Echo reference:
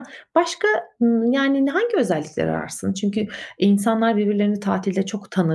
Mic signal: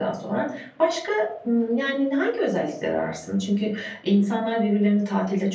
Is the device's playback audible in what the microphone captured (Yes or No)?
Yes